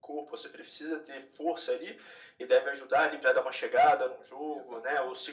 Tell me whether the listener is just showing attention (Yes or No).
Yes